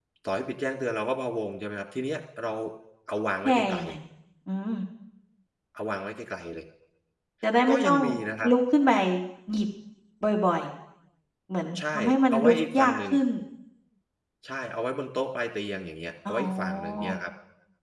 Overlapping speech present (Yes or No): Yes